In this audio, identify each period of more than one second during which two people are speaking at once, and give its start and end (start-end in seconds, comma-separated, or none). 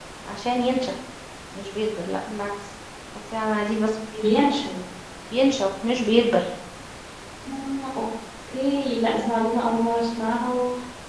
none